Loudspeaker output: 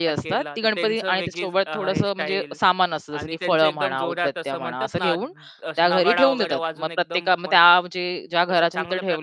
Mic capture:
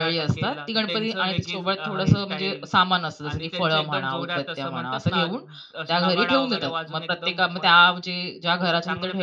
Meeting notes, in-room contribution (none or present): none